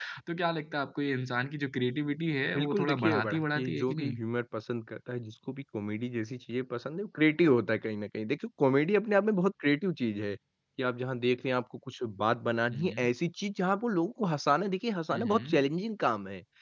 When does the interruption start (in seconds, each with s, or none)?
2.5 s